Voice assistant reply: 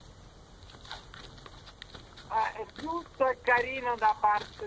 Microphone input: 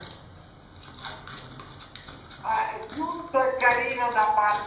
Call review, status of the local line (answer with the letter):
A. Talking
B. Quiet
B